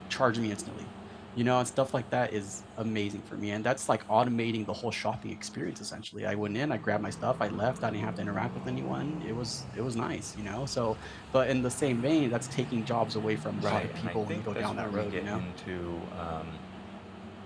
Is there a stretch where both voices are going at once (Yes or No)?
Yes